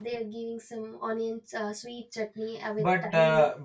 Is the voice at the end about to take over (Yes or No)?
Yes